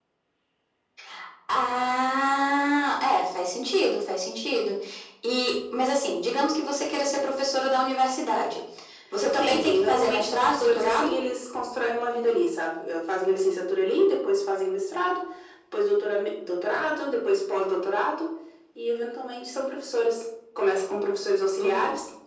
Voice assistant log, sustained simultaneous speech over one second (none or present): present